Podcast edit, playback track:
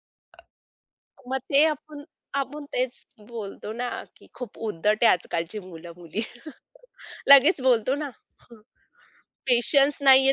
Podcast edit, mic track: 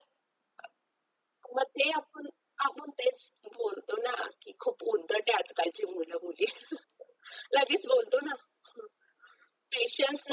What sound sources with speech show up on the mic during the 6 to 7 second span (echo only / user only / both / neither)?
echo only